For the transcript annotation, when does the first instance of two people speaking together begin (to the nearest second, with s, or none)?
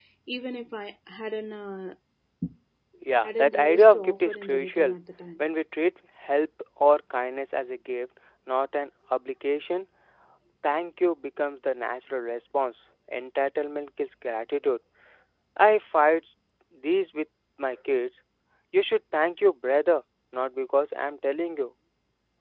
3 s